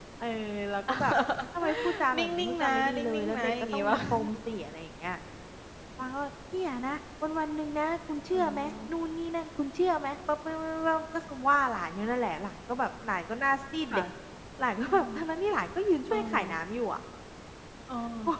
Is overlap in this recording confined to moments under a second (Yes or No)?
No